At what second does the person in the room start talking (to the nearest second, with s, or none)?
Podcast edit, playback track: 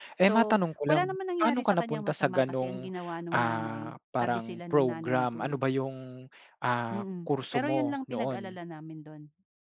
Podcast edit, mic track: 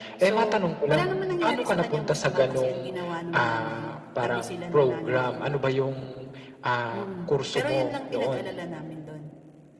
none